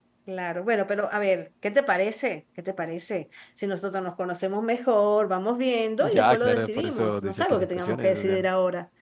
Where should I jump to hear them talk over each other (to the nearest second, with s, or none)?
6 s